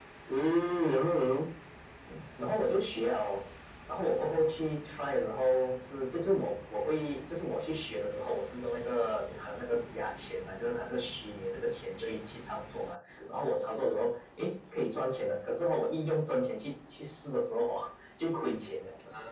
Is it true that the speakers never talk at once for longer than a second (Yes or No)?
Yes